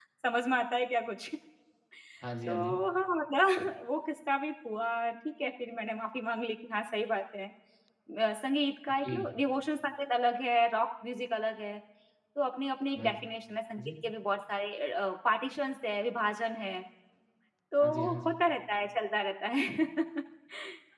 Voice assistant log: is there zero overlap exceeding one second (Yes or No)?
Yes